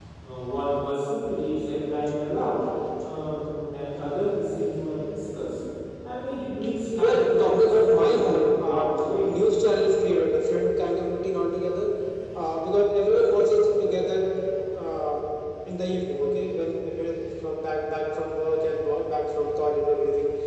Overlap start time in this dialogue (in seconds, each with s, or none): 7.0 s